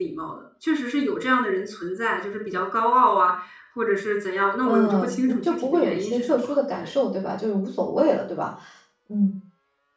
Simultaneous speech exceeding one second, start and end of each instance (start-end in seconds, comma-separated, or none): 4.6-6.9